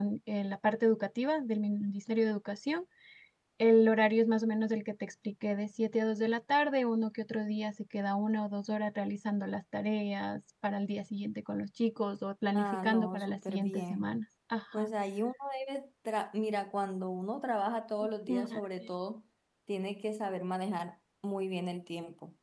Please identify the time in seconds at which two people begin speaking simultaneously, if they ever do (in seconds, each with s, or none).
12.5 s